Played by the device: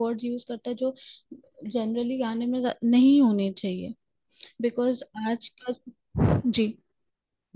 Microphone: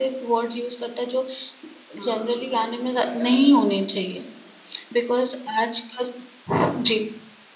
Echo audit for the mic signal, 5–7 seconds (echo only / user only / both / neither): echo only